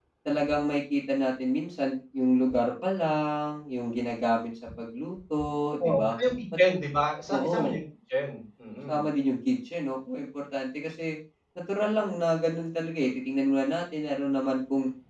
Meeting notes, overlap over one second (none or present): none